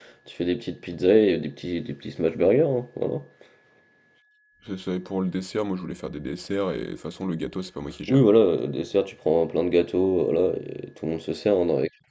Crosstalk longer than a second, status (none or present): none